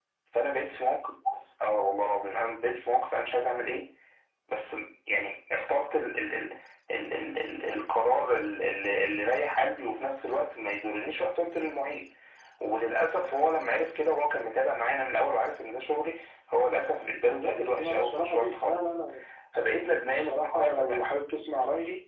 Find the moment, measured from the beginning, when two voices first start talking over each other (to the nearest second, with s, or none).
17 s